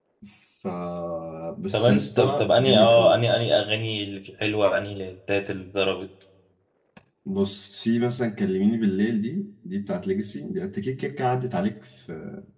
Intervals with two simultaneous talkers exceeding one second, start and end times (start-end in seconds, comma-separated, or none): 1.7-3.2